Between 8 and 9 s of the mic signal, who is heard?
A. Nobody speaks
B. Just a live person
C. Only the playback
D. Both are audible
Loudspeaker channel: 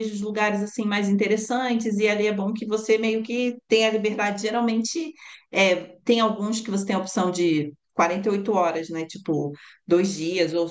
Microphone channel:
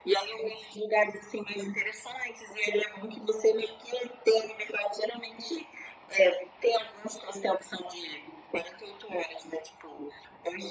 C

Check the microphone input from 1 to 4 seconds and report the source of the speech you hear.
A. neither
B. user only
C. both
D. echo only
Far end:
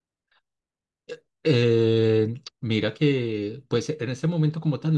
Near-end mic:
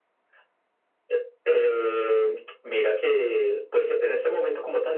D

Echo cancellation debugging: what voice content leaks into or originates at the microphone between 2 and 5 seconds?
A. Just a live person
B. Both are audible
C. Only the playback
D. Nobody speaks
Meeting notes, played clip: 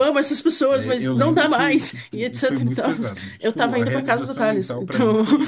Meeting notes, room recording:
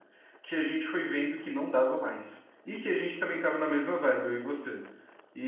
A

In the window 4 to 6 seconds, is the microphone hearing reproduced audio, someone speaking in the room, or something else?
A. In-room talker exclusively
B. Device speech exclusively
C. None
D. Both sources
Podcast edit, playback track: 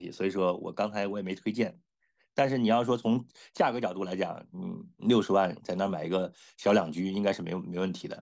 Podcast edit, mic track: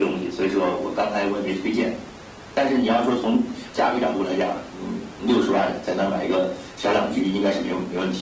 B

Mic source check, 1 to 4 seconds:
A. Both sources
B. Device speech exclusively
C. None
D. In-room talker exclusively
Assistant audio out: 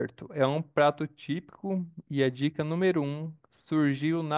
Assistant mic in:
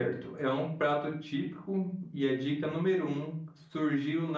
B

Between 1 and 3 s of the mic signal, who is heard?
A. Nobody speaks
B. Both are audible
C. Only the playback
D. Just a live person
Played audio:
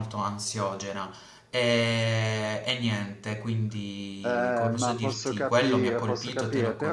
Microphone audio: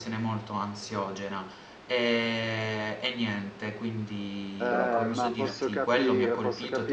C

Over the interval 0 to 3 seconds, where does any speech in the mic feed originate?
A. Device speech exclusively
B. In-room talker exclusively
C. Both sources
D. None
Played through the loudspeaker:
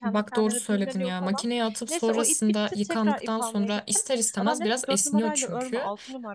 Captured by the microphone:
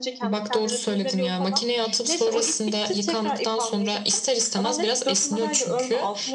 A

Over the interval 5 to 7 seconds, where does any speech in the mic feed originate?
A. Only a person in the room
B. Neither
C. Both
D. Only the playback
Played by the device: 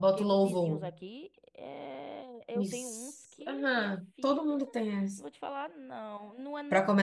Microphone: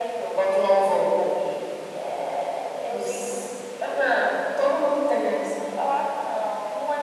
D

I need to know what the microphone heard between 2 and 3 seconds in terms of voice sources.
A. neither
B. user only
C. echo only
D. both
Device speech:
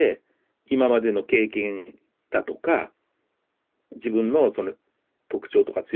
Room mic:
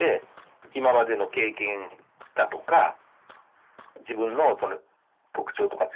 C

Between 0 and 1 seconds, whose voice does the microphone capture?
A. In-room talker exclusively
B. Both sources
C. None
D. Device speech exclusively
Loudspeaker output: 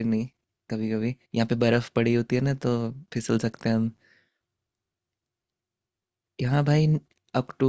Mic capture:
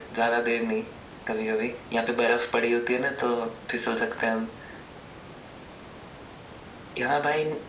D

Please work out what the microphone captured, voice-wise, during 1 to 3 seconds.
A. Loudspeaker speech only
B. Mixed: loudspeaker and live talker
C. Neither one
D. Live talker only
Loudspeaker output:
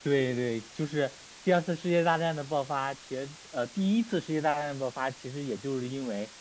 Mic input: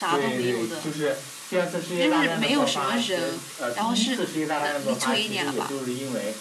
B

